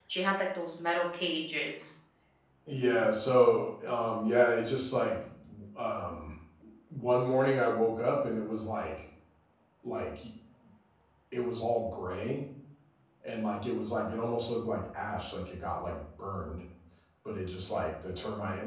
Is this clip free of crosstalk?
Yes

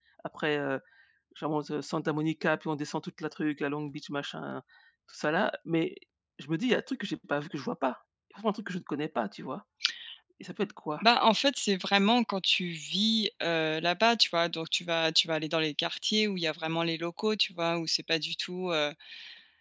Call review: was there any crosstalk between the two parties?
No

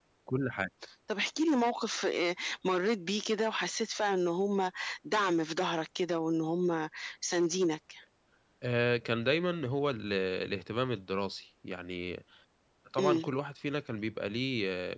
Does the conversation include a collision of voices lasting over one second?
No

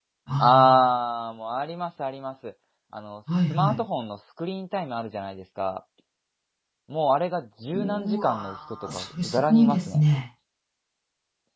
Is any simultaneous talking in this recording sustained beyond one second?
Yes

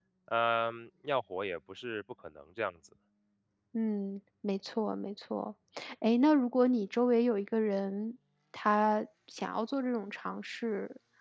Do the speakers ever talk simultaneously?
No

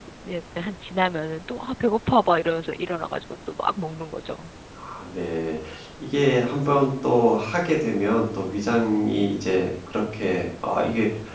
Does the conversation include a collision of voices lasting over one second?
No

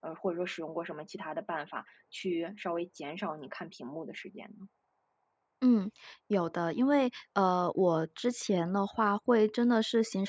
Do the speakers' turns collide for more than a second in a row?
No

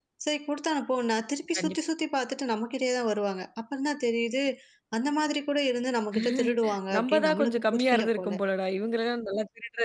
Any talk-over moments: Yes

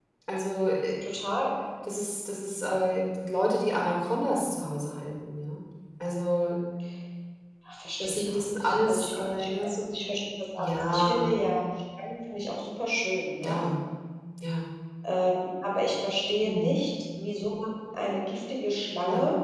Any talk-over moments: Yes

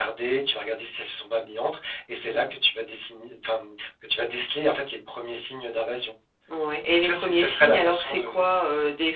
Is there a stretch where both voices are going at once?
Yes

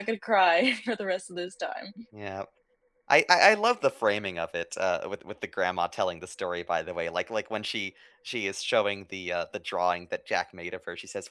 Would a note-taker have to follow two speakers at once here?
No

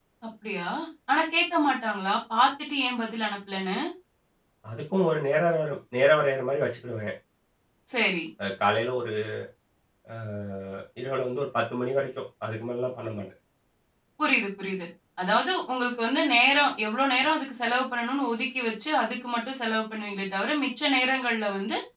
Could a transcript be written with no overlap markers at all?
Yes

